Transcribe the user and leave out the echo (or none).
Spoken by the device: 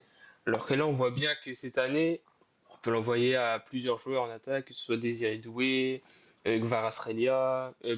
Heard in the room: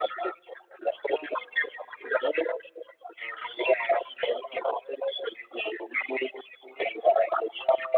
none